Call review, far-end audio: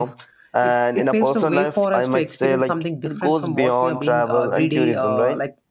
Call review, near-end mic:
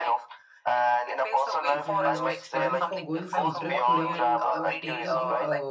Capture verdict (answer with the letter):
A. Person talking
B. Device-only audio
A